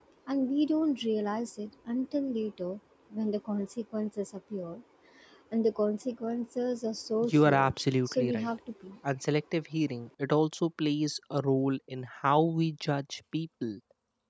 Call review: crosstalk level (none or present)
present